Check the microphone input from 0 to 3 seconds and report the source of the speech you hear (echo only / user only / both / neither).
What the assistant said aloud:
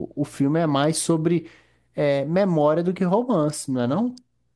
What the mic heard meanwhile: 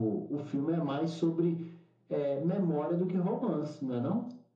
echo only